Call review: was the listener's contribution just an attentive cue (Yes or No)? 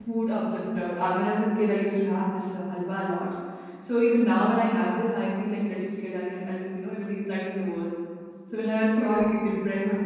Yes